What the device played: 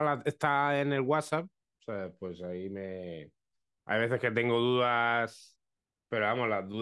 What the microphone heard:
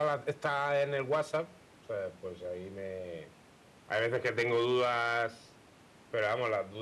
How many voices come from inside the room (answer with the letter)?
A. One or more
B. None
B